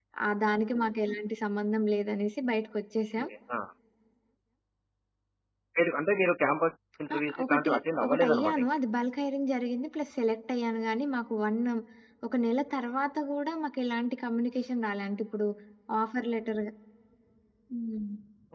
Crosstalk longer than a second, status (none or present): present